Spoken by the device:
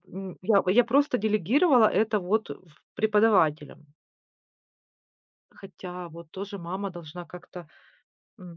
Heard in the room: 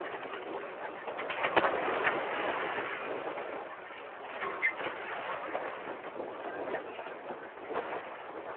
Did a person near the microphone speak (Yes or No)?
No